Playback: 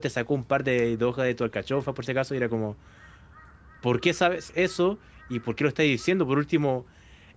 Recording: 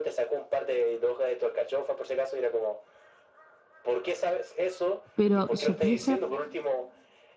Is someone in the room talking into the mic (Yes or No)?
Yes